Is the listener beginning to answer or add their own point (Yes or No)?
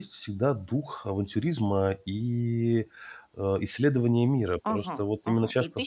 Yes